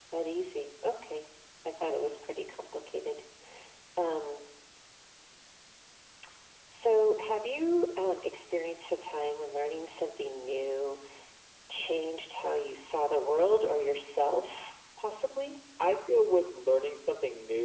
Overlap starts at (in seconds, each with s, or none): none